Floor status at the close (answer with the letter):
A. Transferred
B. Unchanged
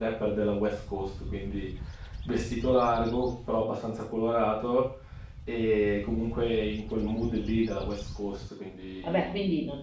A